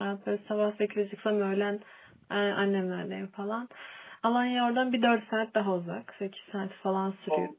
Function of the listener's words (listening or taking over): listening